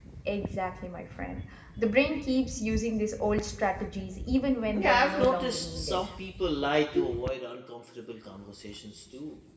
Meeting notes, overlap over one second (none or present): present